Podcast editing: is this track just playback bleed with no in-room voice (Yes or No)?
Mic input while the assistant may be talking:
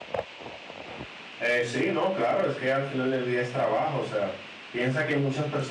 No